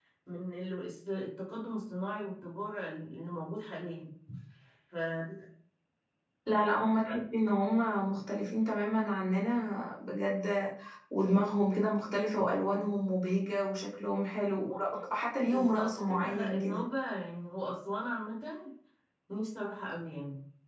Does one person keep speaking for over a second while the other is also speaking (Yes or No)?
Yes